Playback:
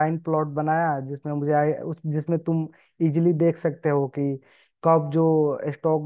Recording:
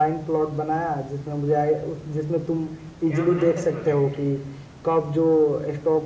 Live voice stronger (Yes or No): No